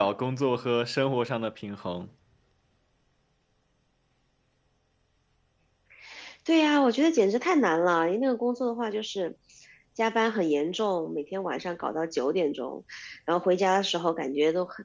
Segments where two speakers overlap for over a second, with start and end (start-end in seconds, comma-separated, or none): none